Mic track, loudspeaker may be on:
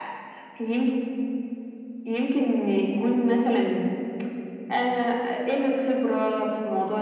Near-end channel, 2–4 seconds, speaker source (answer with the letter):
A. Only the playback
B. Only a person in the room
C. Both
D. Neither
A